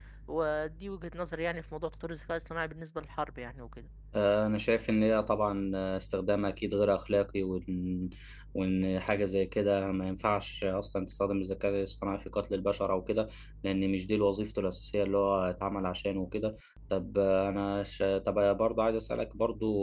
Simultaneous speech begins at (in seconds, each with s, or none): none